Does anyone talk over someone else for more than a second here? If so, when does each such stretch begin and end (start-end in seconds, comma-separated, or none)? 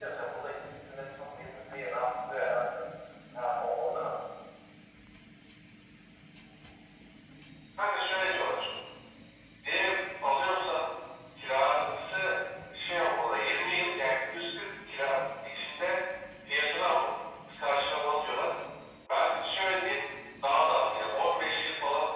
none